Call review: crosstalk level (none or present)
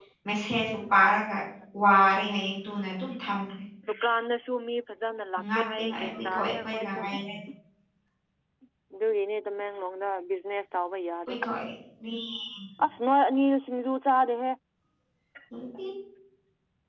present